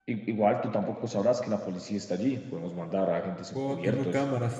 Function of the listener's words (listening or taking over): taking over